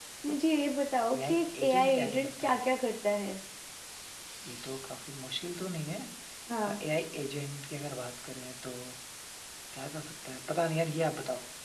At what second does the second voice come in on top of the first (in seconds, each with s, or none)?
1.2 s